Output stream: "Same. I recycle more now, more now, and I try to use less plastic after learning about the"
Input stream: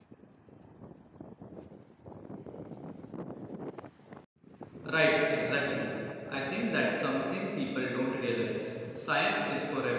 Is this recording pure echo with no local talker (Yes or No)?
No